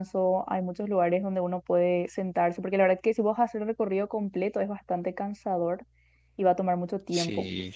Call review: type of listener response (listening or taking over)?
listening